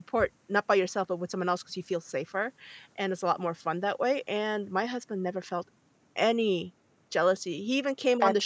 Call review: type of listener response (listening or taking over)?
listening